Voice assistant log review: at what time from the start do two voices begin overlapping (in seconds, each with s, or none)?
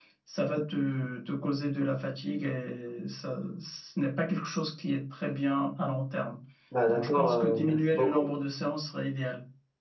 6.9 s